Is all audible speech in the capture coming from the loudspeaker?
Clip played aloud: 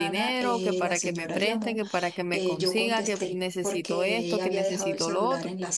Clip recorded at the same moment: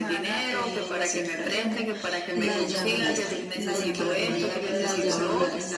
No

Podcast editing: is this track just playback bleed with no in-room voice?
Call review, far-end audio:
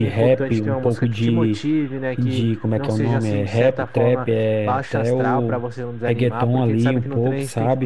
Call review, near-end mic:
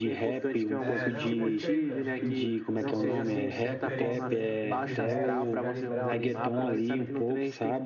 No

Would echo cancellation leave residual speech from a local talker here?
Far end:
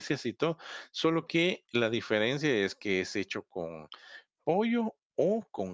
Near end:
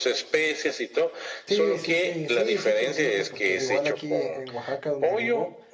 Yes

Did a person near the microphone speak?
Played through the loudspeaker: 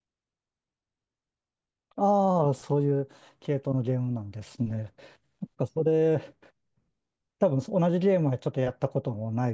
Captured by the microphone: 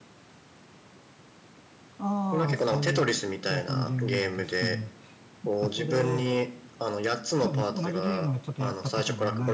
Yes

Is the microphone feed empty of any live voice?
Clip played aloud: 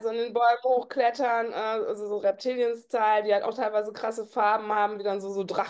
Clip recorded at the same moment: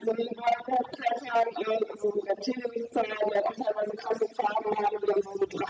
Yes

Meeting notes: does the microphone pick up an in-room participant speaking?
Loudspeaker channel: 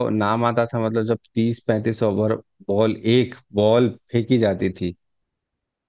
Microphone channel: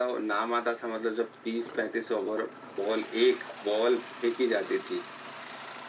No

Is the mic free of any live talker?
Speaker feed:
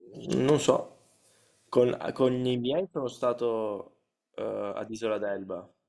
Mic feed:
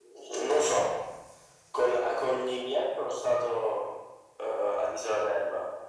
Yes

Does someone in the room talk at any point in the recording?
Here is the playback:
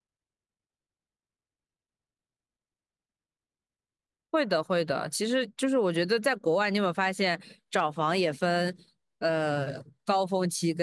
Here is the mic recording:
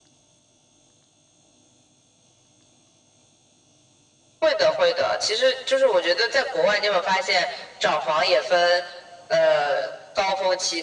No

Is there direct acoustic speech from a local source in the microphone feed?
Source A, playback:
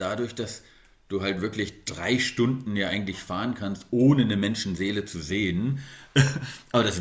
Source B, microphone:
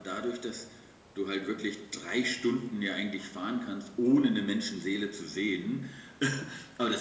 No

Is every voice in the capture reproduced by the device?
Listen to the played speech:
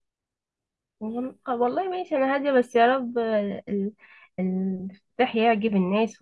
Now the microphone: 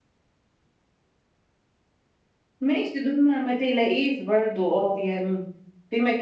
No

